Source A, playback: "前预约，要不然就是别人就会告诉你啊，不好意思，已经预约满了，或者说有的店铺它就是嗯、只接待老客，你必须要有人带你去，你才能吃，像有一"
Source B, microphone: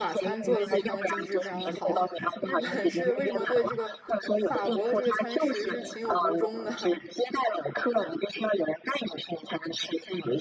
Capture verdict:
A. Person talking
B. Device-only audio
A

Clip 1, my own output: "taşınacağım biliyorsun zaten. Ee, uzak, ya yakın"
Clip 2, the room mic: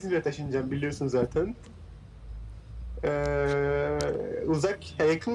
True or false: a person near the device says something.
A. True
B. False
B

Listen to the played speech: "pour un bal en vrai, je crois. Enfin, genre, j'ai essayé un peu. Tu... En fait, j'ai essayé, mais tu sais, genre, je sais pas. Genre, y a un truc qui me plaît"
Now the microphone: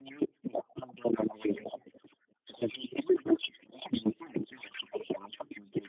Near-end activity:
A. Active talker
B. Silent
B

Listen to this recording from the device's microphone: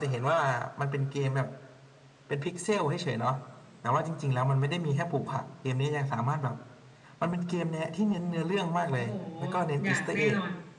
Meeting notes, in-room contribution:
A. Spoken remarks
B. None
A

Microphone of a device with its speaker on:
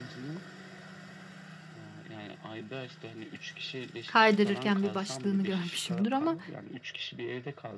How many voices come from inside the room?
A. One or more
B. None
A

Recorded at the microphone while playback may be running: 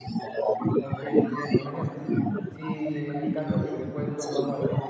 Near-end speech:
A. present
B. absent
A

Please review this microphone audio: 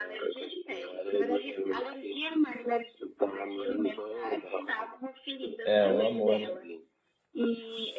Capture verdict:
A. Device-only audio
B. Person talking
B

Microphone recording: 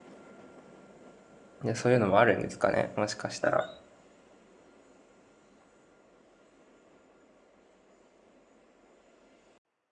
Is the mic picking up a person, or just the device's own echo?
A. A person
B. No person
A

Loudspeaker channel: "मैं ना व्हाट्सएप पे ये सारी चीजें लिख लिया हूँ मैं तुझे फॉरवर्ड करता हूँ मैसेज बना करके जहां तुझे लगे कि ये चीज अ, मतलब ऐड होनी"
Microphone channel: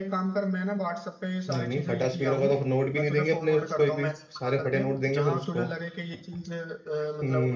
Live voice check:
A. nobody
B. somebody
B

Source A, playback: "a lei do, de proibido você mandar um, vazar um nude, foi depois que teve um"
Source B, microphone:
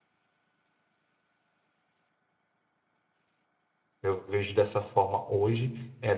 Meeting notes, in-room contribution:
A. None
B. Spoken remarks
B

